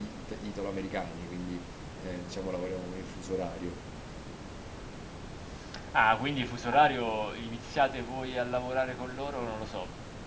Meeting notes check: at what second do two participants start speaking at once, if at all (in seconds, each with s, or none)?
none